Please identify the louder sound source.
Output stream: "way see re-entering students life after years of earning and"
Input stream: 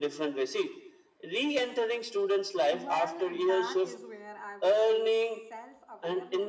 echo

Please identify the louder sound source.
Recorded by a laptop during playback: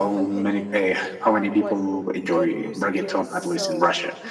echo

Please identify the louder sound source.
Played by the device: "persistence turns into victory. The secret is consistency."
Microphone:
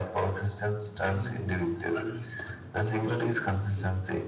echo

